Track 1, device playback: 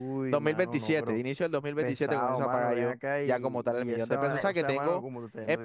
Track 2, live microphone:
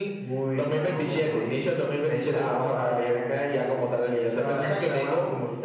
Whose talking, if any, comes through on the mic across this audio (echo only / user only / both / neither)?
echo only